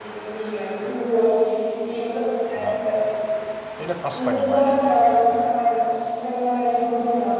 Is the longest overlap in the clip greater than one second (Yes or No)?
Yes